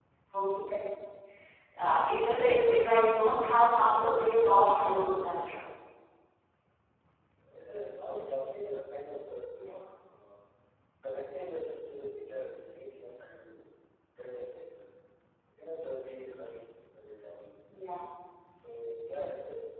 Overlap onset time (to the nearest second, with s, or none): 4 s